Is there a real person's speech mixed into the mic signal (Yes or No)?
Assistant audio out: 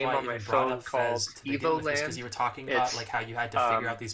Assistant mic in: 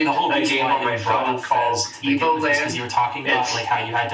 No